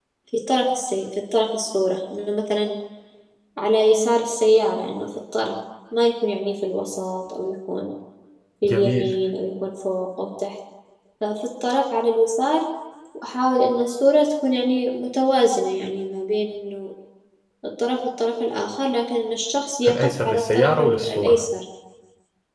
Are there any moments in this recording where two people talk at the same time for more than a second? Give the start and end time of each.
19.9-21.4

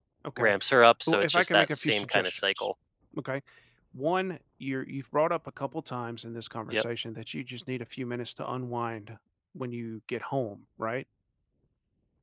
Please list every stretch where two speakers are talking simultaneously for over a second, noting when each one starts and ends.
1.1-2.7

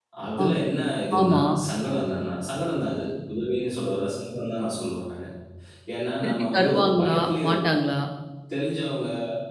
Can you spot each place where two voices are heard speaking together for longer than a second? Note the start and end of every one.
6.2-7.7

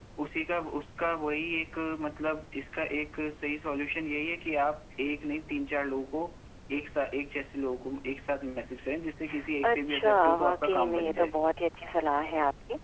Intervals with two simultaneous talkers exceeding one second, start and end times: 9.6-11.3

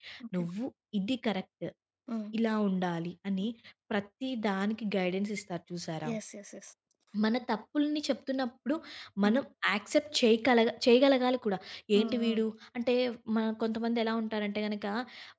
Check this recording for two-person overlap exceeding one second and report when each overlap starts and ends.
none

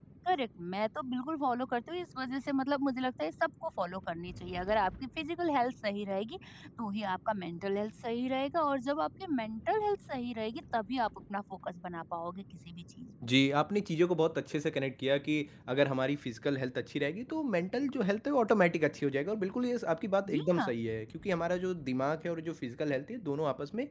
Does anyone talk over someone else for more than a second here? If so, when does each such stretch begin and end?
none

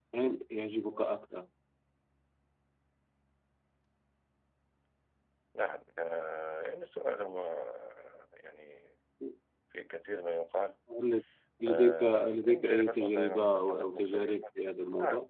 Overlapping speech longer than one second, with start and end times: 11.7-14.3

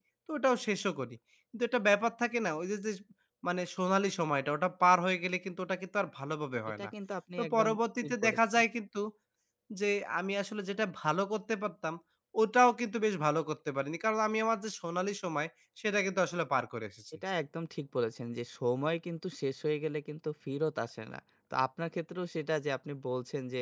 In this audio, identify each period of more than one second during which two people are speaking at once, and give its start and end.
7.4-8.6

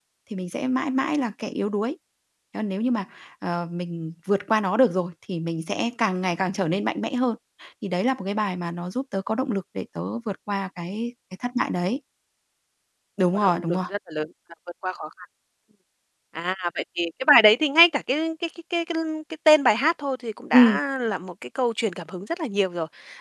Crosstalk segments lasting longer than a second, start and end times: none

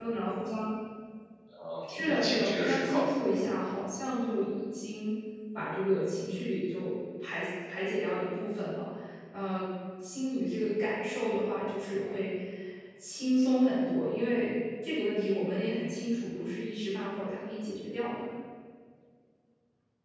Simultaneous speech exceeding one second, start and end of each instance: 1.8-3.5

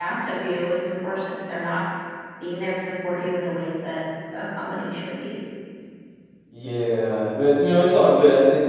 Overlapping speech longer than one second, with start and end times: none

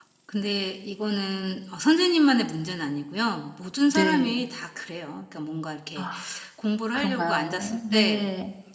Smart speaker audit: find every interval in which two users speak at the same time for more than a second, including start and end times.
6.9-8.2

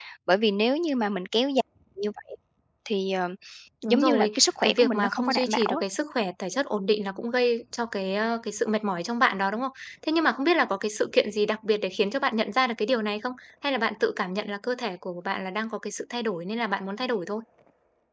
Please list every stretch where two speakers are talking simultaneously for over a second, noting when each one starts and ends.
3.9-5.8

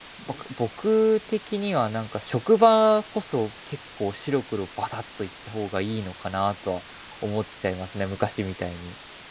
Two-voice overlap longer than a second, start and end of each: none

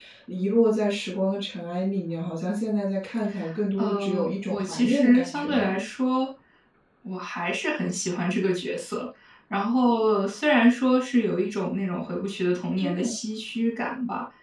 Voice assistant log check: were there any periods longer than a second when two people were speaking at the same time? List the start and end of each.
3.8-5.8

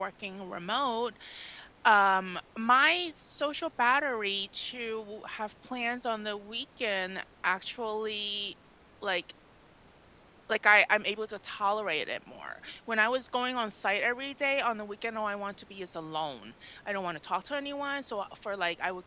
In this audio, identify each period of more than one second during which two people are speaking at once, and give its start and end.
none

